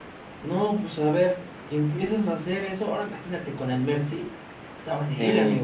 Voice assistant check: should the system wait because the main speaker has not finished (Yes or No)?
No